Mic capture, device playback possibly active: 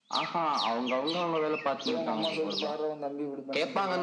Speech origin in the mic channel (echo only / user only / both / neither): echo only